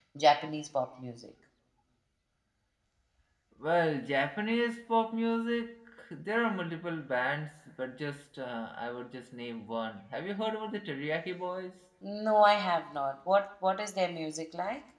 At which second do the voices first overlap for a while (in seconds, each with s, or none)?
none